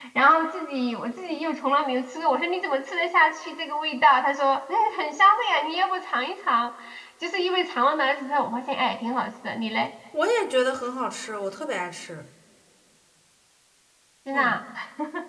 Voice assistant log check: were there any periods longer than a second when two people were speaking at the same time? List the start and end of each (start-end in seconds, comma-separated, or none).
none